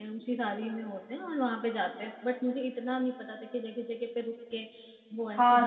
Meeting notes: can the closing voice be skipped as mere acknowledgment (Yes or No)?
No